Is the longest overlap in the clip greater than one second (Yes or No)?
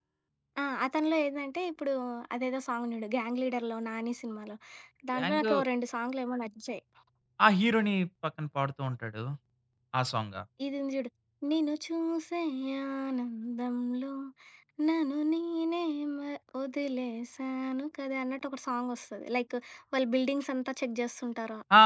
No